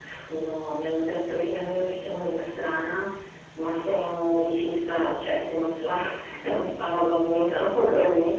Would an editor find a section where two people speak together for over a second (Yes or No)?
No